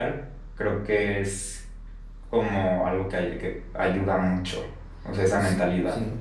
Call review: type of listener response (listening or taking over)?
taking over